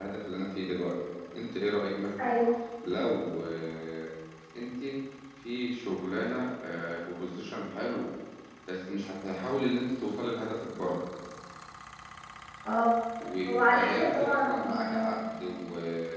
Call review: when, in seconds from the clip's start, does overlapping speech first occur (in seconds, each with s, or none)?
13.4 s